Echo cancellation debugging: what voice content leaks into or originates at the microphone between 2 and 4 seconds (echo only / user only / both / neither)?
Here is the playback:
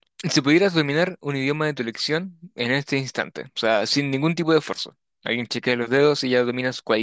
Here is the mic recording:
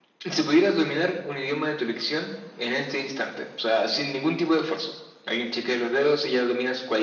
echo only